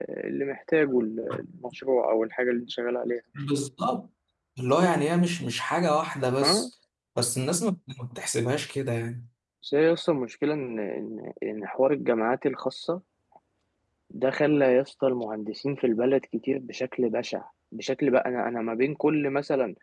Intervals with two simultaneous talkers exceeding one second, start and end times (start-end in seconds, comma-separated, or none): none